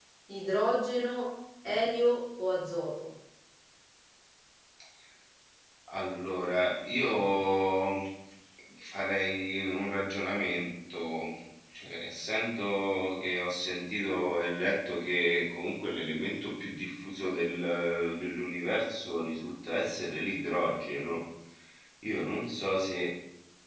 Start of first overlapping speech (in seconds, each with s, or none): none